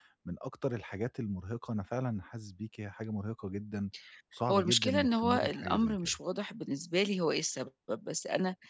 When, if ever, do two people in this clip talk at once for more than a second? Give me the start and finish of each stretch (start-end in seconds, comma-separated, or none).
4.5-6.2